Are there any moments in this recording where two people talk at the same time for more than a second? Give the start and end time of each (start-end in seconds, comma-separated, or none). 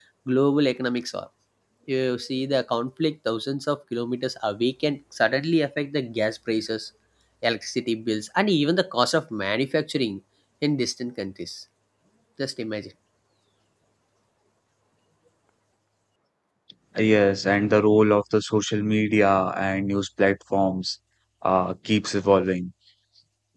none